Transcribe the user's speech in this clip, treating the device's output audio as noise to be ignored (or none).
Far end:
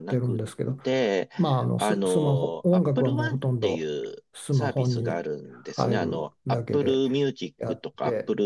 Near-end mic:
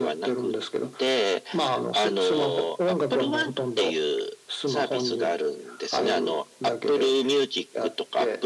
none